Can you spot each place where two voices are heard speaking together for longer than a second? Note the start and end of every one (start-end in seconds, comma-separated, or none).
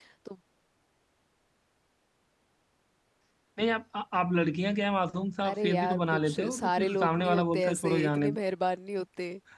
5.5-8.3